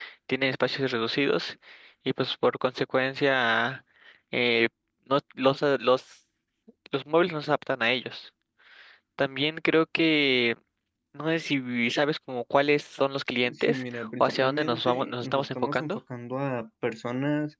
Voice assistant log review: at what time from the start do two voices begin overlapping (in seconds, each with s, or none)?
13.4 s